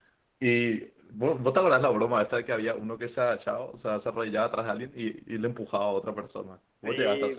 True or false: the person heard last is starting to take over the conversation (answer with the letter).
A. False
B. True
B